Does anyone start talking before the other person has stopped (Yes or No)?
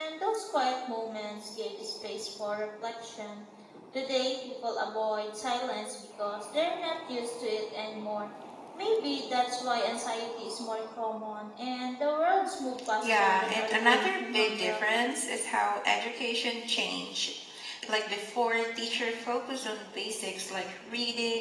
Yes